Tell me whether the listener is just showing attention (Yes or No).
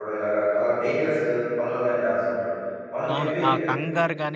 No